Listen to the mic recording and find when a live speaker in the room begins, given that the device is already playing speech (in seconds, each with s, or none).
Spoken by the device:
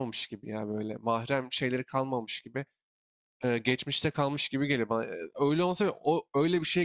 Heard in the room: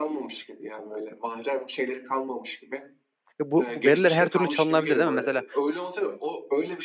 3.4 s